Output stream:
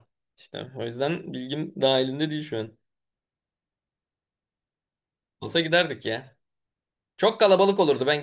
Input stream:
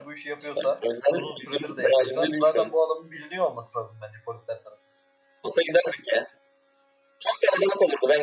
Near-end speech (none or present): present